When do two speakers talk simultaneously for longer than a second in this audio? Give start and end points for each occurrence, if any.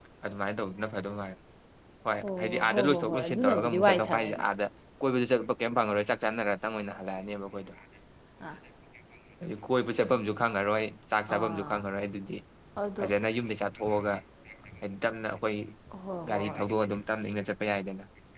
2.5-4.5

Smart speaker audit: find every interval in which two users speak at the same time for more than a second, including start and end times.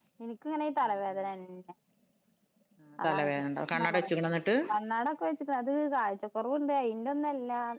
none

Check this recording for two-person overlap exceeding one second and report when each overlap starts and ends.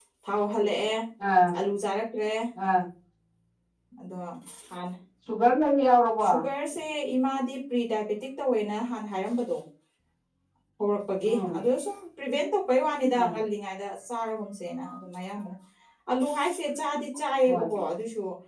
none

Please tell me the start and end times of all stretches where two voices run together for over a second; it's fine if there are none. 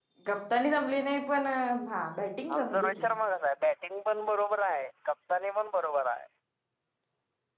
none

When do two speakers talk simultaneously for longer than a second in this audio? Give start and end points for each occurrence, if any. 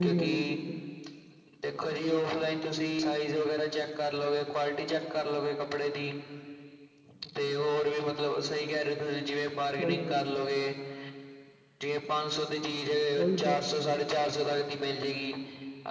none

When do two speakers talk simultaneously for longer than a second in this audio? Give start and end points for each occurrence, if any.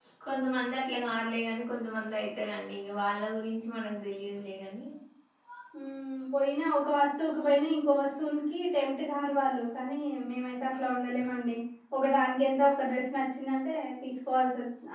none

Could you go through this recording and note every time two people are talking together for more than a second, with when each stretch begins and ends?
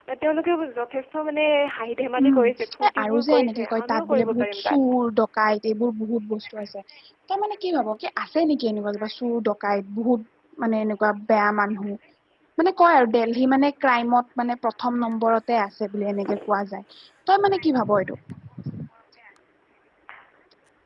2.2-4.8

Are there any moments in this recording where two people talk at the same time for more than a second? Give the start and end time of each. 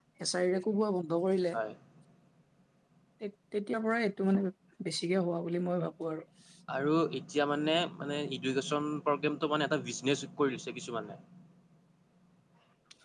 none

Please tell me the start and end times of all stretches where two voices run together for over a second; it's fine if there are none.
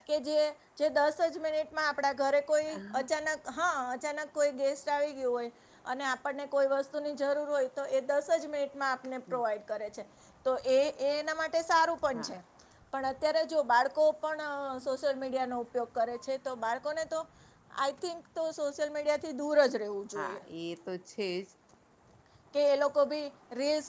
none

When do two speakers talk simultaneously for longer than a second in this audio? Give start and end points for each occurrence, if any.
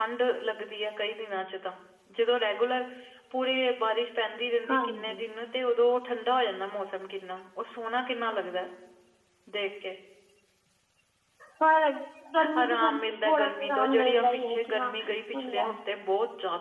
12.6-15.7

